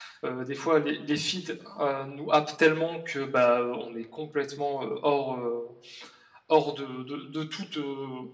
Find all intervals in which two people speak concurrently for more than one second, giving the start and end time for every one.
none

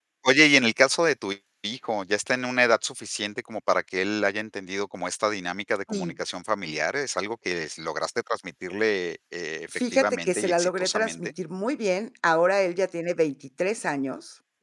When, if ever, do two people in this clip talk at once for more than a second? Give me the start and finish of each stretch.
9.7-11.2

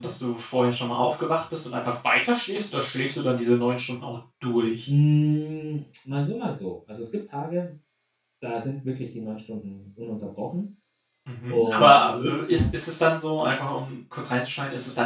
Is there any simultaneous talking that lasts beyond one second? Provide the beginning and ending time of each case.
11.5-12.8

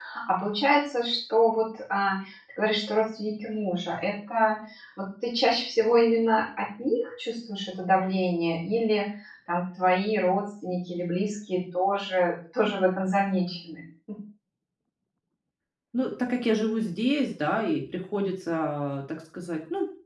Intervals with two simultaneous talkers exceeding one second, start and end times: none

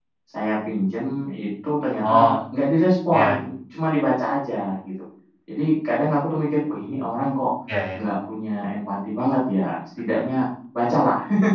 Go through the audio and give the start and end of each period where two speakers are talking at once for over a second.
none

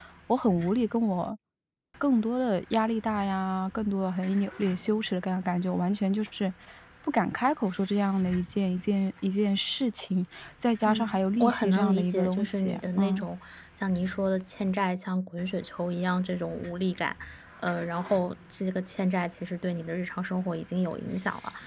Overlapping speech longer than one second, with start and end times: 10.9-13.2

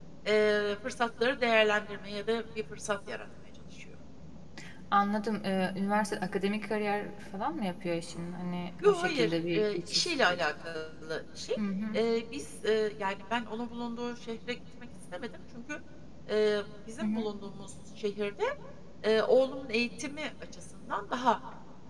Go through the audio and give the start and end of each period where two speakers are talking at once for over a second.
8.8-10.4

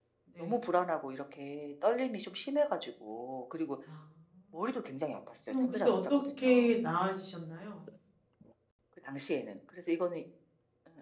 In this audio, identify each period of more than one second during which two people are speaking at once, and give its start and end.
5.5-6.7

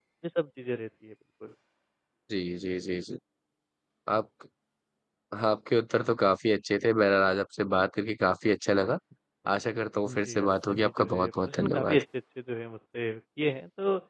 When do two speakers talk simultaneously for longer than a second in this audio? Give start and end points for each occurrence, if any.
10.1-12.0

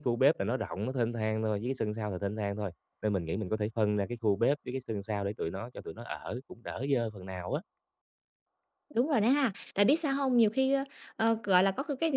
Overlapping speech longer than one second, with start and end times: none

